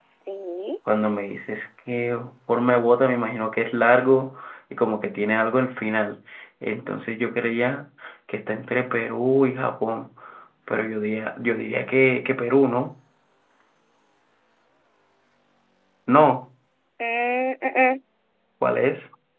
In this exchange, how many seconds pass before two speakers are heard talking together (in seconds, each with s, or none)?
none